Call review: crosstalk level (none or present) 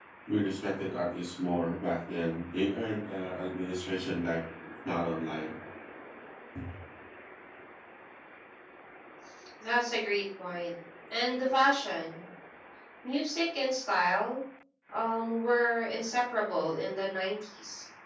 none